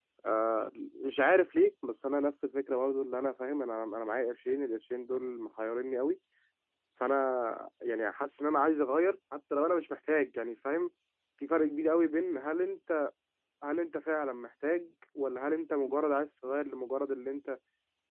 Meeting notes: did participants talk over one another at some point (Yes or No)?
No